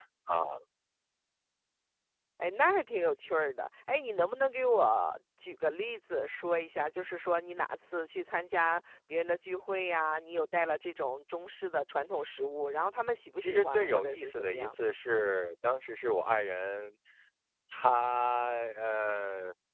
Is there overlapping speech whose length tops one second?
Yes, from 13.4 s

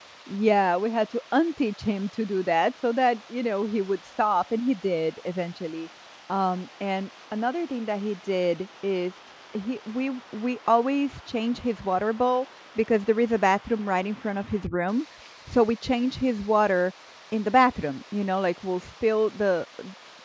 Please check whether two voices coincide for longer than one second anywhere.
No

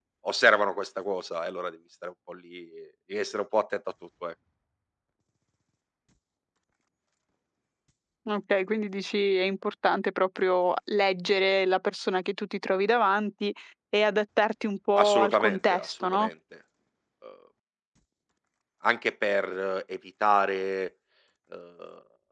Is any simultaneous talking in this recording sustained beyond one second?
Yes, from 14.9 s

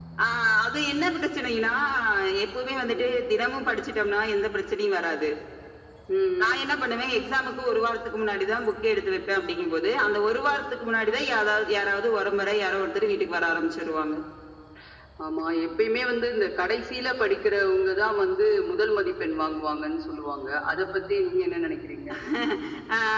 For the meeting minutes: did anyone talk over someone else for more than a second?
No

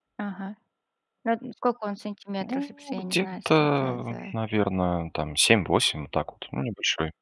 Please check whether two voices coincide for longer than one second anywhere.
Yes, from 2.4 s

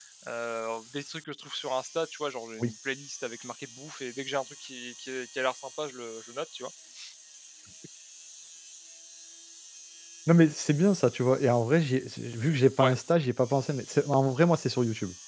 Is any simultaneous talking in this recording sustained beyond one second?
No

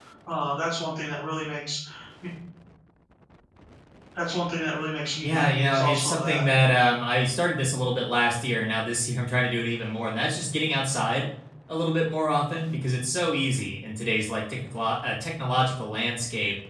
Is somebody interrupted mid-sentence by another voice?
Yes, from 5.2 s

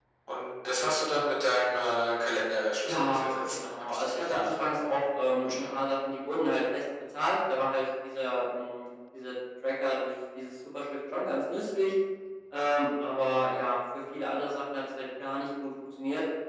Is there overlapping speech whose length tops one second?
Yes, from 2.9 s

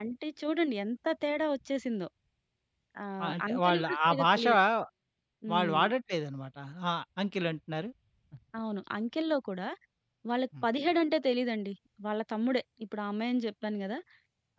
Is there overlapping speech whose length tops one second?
Yes, from 3.2 s

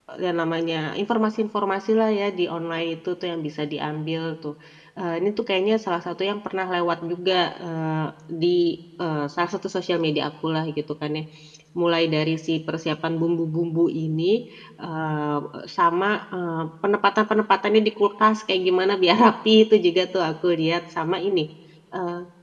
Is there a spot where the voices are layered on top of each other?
No

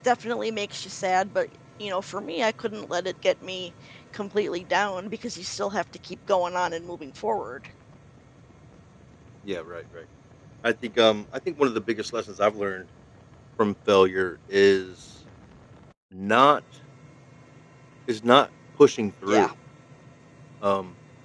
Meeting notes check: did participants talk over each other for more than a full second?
No

